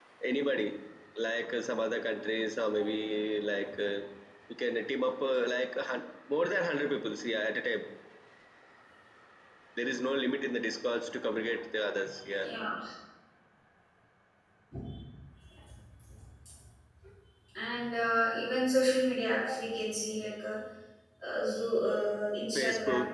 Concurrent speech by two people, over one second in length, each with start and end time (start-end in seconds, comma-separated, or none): none